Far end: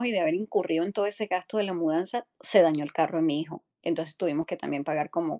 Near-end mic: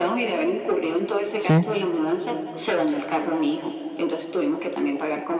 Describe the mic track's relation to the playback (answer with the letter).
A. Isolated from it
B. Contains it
B